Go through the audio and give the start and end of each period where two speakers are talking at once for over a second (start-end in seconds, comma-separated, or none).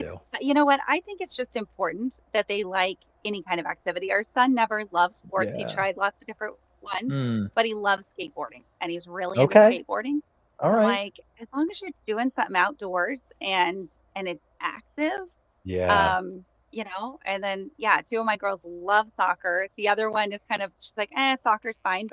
none